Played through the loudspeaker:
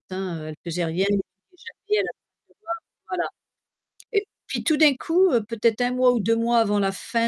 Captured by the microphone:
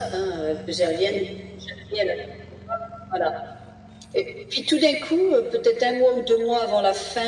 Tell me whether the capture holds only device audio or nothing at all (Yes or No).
Yes